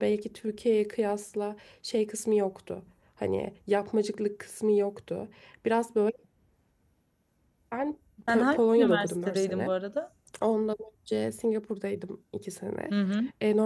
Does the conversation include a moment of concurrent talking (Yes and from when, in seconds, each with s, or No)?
Yes, from 8.3 s